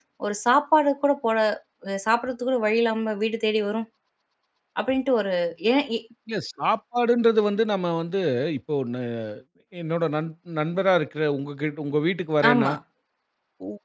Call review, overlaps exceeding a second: none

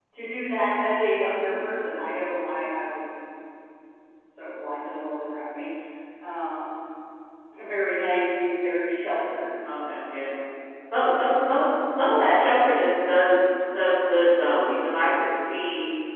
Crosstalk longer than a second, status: none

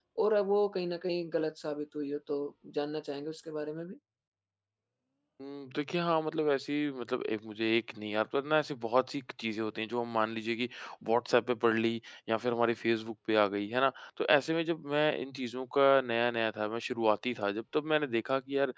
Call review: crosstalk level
none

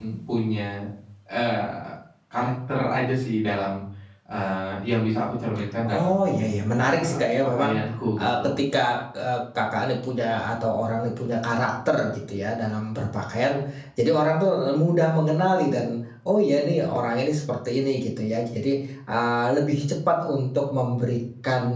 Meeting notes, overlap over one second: present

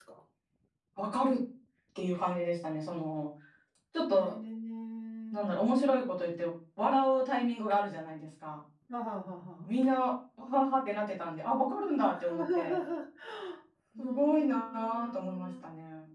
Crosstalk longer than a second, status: present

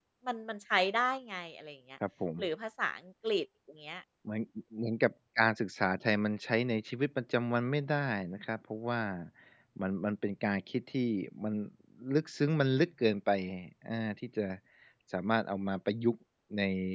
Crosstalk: none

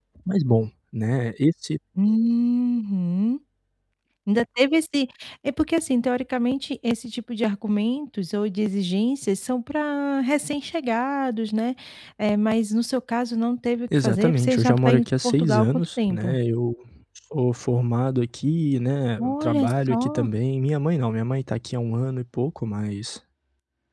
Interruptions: present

